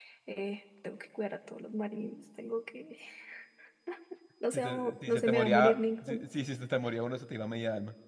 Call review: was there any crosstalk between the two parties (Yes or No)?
Yes